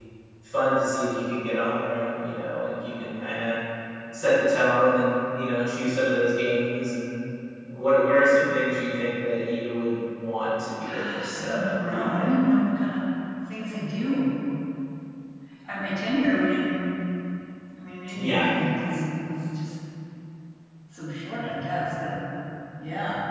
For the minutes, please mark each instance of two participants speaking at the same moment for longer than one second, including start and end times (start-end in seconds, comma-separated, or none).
10.8-12.4